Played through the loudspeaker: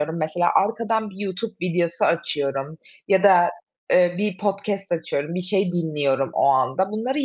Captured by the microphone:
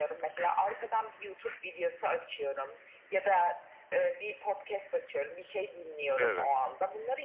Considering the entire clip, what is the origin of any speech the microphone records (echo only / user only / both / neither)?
both